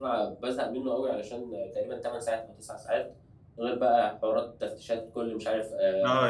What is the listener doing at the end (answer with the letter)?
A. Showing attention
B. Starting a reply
B